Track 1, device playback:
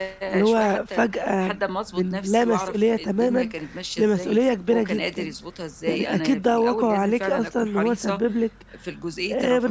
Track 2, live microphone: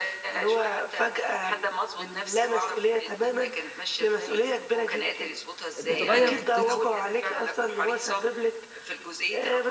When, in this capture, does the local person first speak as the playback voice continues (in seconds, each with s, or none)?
5.8 s